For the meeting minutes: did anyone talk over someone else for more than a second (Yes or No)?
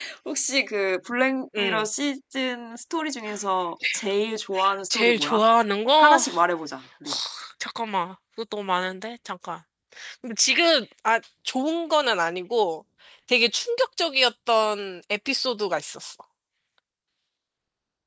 No